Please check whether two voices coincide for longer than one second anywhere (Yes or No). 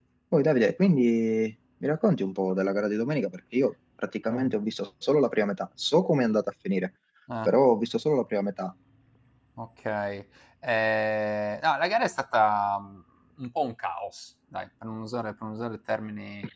No